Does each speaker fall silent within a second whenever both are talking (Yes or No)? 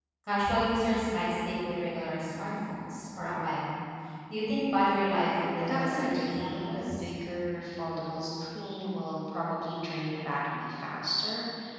No